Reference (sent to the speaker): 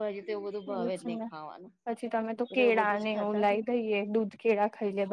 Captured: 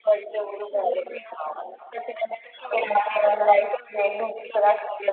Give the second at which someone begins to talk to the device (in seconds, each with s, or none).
none